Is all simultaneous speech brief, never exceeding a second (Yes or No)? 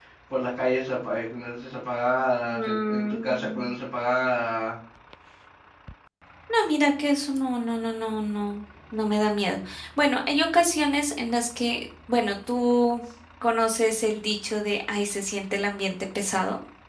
No